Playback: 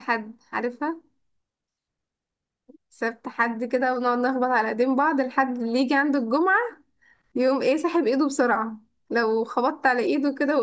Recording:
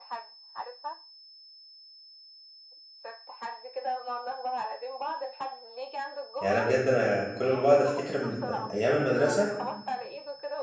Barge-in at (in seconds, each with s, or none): 6.4 s